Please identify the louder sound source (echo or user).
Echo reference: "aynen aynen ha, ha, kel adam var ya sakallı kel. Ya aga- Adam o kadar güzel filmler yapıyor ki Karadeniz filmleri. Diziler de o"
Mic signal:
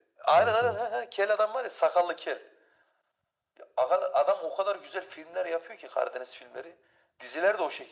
echo